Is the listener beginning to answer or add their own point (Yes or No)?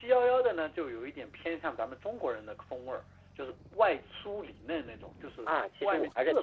Yes